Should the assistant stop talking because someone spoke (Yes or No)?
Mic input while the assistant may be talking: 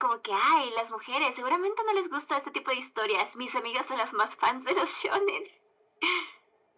No